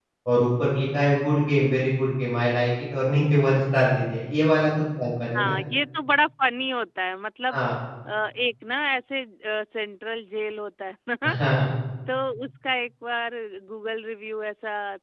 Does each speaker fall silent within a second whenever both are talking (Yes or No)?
Yes